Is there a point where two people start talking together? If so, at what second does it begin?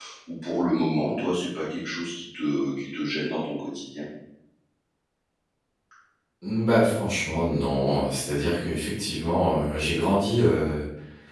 none

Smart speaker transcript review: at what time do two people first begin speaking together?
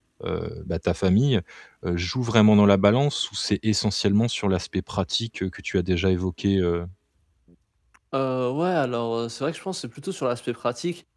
none

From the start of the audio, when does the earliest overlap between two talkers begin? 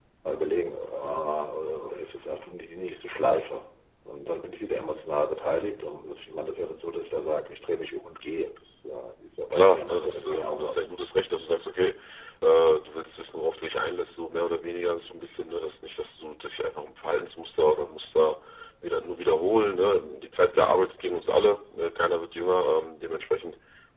10 s

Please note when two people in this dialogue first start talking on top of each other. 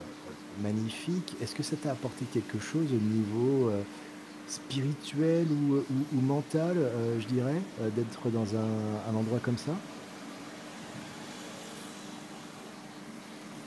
none

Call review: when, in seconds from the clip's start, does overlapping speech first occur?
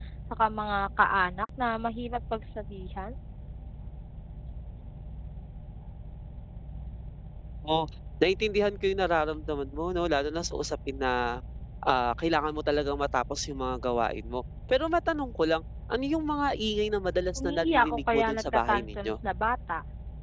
17 s

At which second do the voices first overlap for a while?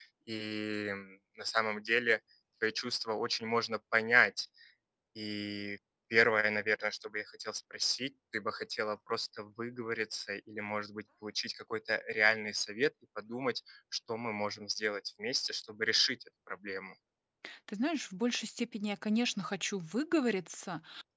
none

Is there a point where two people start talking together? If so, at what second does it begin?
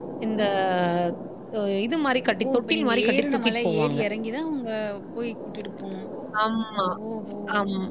2 s

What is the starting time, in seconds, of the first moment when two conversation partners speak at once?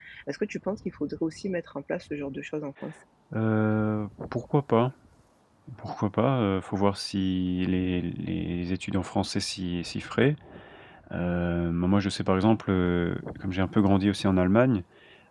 none

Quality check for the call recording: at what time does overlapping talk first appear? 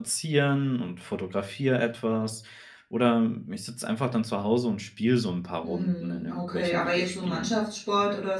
6 s

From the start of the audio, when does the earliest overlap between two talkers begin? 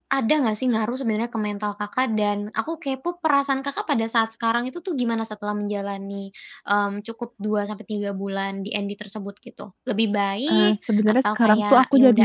10 s

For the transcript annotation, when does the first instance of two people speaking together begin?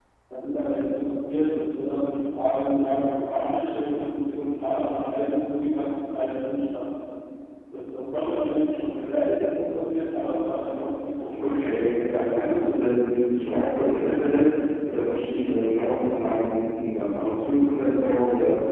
11 s

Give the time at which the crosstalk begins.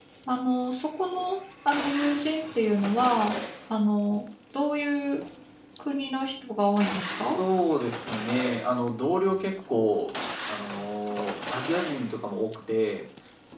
none

